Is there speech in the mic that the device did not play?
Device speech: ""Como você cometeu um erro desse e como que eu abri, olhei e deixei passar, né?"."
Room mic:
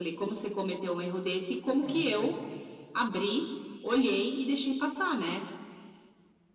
Yes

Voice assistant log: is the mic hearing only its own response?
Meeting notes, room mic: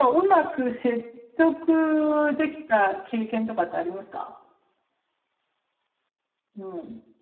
Yes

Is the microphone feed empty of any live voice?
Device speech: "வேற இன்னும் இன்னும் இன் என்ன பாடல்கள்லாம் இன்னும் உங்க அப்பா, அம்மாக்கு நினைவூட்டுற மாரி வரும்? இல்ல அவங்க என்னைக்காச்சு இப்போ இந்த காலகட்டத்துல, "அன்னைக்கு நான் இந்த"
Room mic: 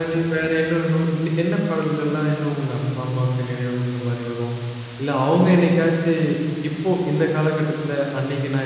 Yes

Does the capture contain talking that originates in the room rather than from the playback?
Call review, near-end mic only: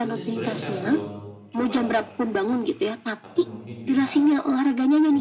Yes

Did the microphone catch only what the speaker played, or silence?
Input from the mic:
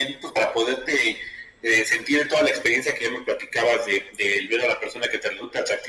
Yes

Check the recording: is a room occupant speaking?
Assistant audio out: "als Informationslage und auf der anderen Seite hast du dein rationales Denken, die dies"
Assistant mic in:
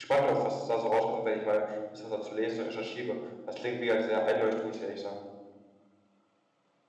Yes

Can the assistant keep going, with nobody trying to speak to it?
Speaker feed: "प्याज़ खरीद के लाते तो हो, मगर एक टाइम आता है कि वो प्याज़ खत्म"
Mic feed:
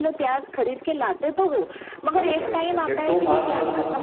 No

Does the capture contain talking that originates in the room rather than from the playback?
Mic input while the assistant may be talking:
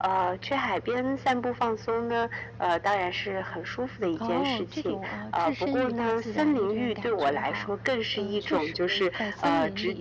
Yes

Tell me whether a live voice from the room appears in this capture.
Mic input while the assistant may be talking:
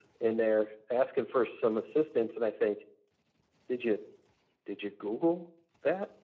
No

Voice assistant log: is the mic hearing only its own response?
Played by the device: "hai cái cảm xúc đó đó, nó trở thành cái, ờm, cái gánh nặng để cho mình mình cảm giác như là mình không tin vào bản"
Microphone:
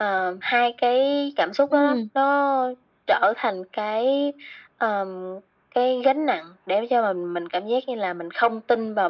No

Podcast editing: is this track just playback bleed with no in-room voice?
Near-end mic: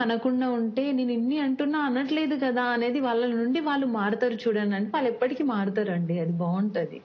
Yes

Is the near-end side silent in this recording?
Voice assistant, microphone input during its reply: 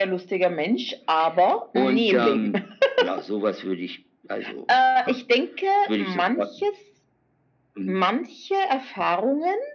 Yes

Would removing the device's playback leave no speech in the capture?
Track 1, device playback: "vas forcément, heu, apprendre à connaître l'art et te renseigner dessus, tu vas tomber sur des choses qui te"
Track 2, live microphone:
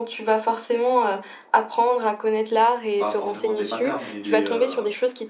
No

